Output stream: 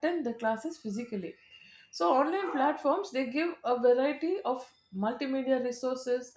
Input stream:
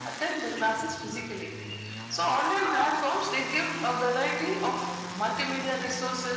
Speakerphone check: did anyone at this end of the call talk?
No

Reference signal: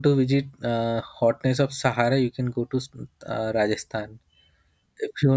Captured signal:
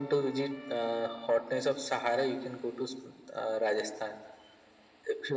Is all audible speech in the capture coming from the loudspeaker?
Yes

